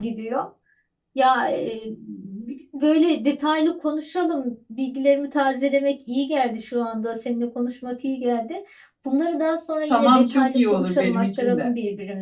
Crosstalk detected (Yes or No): Yes